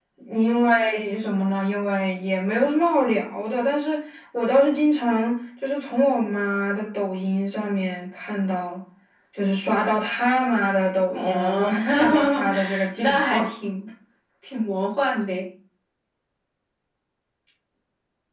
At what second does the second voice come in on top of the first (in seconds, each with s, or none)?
11.1 s